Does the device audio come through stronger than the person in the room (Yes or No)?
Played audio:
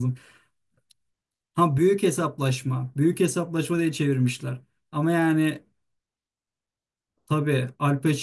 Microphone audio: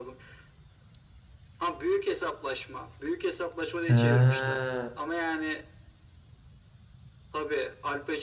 No